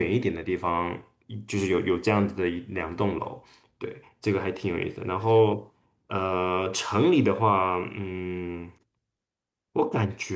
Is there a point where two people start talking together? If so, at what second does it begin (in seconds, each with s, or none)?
none